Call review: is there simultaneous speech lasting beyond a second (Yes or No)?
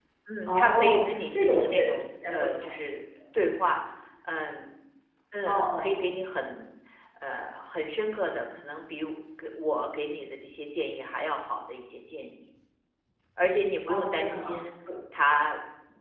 Yes